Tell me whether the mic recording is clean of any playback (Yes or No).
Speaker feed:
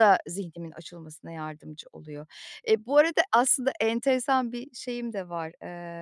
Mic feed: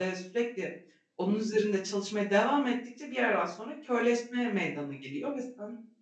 Yes